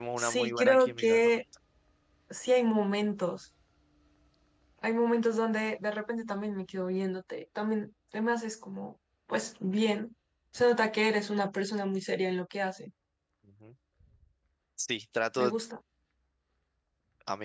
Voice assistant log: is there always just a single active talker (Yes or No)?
No